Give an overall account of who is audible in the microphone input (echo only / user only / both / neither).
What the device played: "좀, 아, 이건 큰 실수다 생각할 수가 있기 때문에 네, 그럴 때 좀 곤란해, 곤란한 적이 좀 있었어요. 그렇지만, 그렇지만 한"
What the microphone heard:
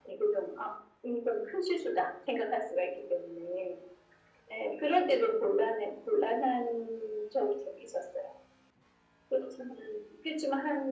echo only